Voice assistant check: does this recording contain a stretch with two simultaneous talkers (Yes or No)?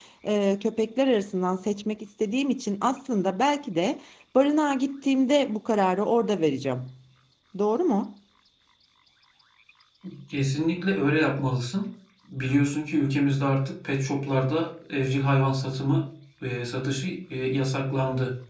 No